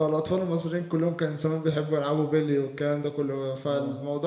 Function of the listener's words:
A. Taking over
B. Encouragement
B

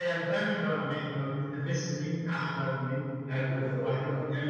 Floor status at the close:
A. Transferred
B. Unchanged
B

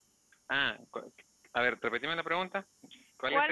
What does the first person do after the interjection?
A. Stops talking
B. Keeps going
A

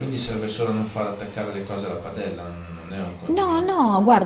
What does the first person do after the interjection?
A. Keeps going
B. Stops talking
B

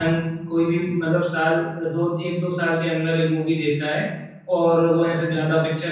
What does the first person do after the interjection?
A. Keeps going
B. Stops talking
A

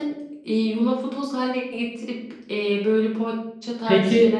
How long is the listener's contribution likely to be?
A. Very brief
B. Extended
B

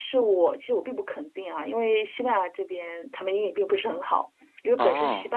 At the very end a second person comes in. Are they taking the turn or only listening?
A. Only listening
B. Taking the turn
A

